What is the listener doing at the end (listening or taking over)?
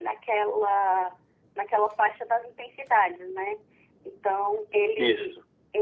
listening